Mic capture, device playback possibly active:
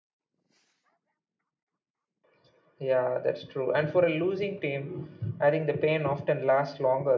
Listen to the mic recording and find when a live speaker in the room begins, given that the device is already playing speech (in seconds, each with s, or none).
none